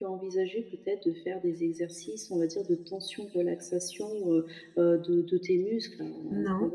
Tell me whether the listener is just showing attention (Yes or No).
Yes